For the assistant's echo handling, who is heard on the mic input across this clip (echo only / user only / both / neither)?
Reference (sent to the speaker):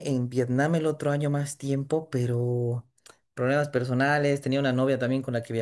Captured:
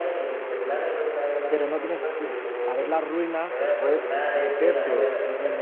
both